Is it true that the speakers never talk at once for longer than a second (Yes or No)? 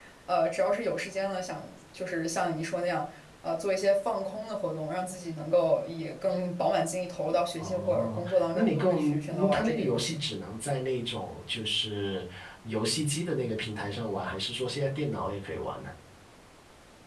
No